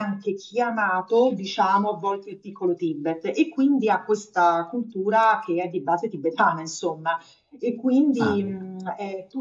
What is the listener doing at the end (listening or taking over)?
listening